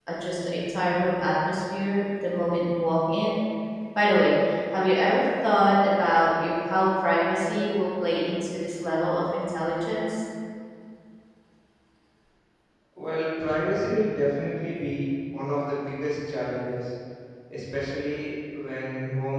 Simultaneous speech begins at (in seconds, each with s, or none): none